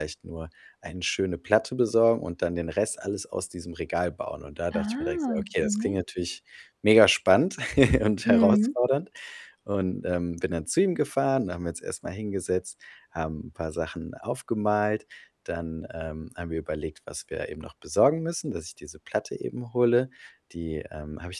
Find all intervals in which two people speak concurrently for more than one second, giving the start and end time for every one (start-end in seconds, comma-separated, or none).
4.7-6.0